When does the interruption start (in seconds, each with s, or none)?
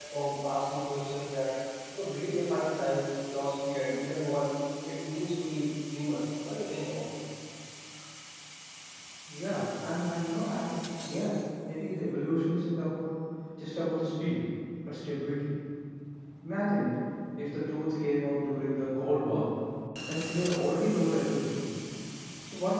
none